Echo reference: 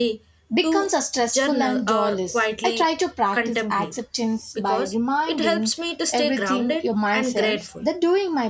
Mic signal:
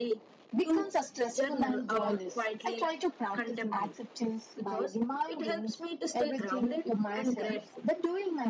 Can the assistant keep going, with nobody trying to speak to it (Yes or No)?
Yes